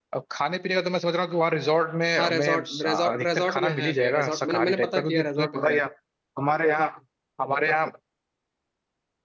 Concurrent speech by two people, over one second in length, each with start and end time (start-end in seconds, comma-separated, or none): 2.2-5.8